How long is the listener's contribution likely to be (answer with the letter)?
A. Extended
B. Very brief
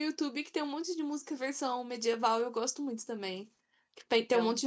B